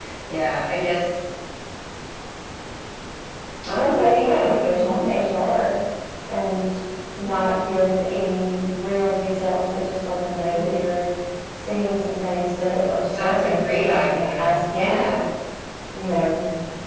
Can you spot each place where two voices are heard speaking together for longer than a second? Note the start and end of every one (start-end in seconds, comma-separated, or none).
3.8-5.0, 13.1-15.0